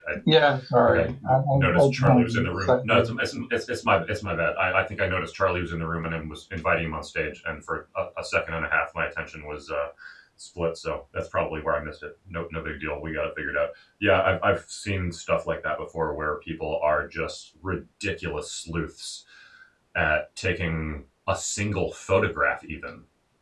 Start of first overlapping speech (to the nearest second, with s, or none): 1 s